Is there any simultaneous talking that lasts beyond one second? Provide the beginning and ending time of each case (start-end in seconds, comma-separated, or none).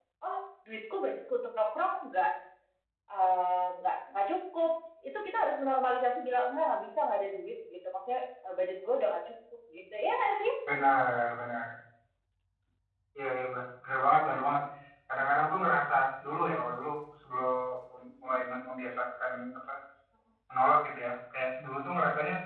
none